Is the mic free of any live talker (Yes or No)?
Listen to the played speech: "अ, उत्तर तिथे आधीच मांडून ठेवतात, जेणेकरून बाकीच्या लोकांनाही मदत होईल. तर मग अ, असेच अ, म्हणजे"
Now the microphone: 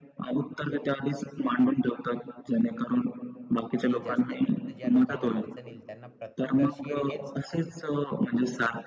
No